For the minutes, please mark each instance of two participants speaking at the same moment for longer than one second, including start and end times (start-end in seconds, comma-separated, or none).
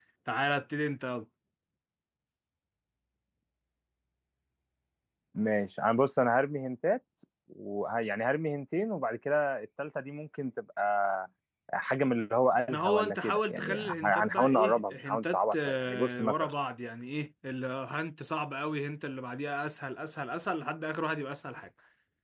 12.7-16.5